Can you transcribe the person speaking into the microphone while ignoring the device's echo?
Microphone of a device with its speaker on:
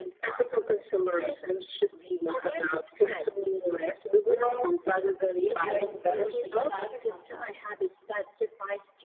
do you just go with whatever comes up?

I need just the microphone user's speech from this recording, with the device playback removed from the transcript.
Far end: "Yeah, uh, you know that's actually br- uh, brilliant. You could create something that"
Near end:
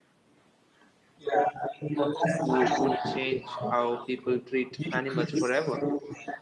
wo- would change how people treat animals forever.

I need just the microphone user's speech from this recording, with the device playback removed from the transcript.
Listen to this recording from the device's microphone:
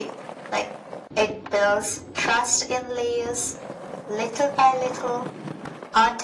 none

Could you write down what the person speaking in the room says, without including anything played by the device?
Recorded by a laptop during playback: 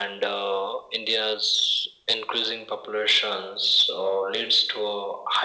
none

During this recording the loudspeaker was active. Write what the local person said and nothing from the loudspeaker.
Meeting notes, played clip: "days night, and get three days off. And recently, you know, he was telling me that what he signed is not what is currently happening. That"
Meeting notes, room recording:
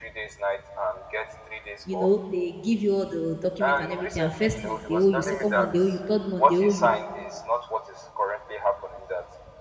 you know they give you all the documents and everything and first month they owe you second month they owe you third month they owe you

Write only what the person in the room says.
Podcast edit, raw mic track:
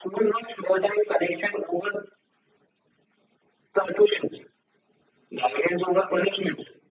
none

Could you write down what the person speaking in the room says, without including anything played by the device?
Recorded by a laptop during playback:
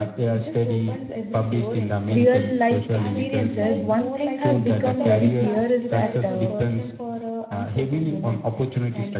real life experiences one thing has become very clear is that uh,

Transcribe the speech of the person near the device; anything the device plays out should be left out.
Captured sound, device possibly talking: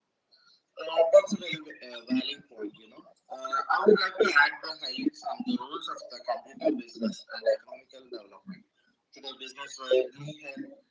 none

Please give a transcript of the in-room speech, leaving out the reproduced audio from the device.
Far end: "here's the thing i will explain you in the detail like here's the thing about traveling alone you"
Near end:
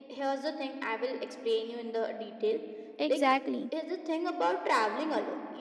exactly

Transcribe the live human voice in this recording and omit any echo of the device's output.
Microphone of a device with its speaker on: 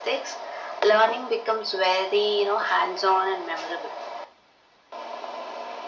none

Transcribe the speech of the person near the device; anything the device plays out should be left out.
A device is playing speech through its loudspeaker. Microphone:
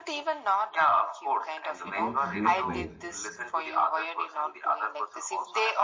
it works both ways.

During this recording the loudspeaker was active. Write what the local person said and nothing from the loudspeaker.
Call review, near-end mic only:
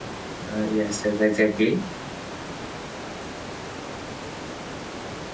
uh, yes, yes, exactly.

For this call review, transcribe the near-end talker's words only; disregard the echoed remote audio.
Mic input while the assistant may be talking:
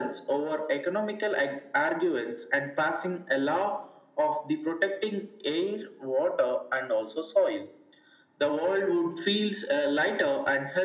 none

